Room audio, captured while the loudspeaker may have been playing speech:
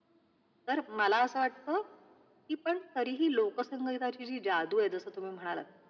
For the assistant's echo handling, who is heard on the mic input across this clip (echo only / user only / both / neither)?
echo only